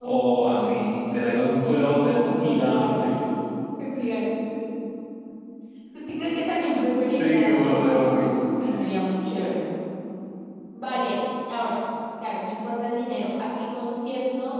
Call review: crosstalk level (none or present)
present